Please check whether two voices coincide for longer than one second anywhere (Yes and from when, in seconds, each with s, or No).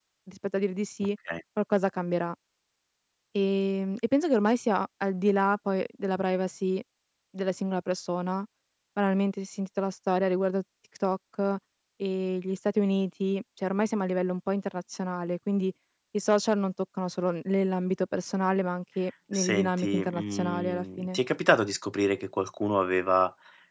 Yes, from 19.3 s